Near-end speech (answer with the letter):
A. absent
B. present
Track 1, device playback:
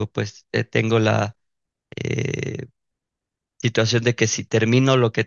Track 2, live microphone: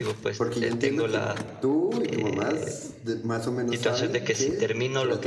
B